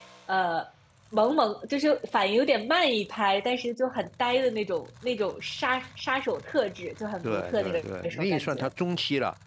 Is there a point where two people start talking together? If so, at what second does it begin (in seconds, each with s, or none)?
7.2 s